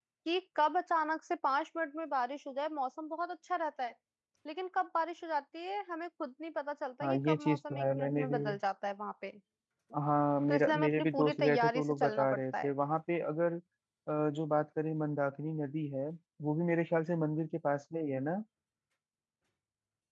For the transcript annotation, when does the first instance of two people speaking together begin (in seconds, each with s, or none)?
7.0 s